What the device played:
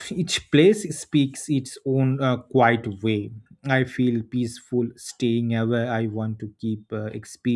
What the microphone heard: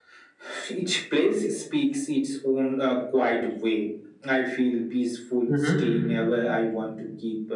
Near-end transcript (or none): hmm